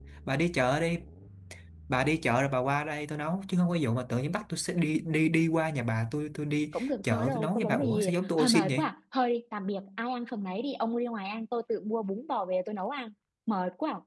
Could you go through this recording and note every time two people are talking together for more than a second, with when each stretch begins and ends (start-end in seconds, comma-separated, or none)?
6.7-8.9